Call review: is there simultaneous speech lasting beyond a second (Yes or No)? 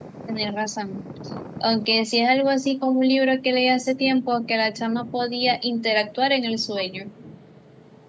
No